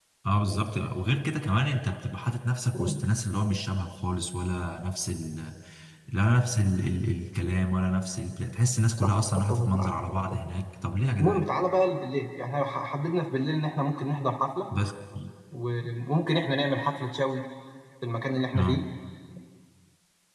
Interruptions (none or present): present